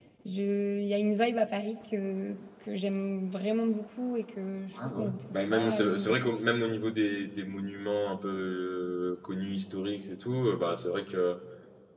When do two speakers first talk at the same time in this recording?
4.7 s

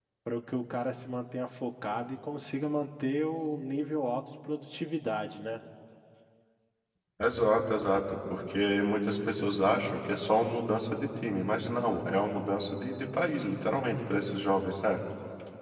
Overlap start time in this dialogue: none

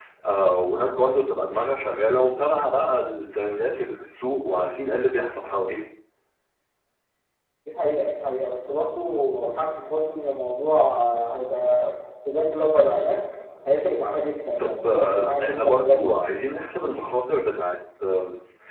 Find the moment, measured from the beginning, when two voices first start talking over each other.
14.6 s

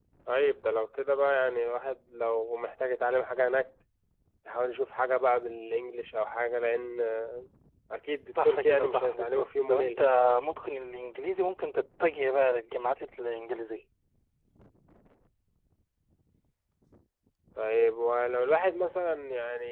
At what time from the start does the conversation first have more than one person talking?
8.3 s

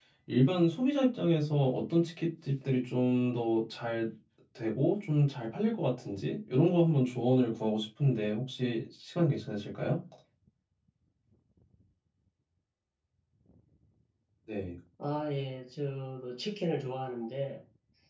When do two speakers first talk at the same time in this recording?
none

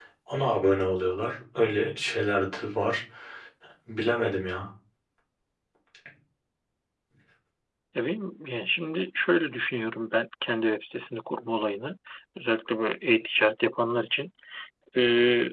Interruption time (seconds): none

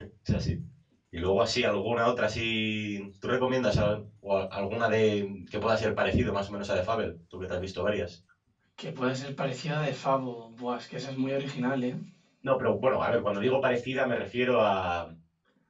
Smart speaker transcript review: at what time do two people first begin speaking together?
none

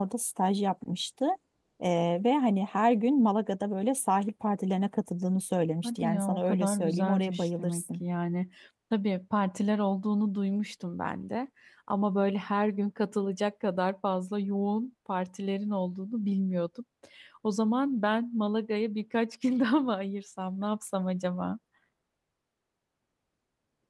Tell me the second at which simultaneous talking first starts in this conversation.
5.8 s

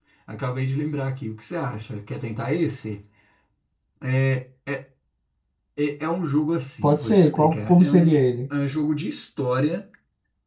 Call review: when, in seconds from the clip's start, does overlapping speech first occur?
6.8 s

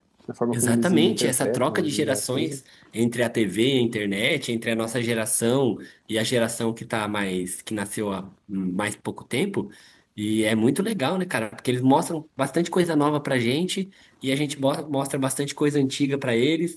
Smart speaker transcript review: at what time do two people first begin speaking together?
0.5 s

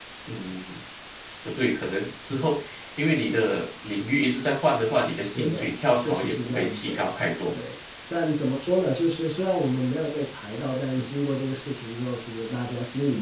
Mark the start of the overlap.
5.3 s

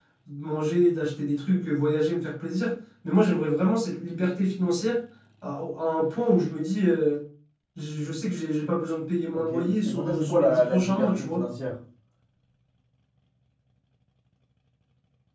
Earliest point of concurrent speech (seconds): 9.3 s

